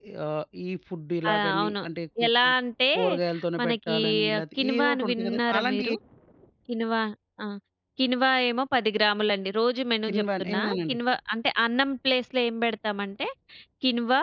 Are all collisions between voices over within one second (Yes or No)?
No